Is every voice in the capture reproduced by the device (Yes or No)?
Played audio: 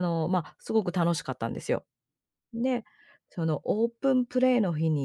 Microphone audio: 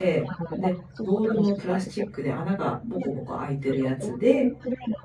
No